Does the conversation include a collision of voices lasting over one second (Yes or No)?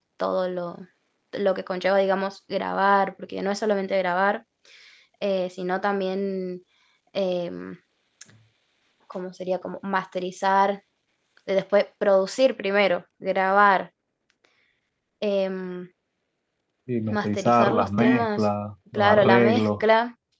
Yes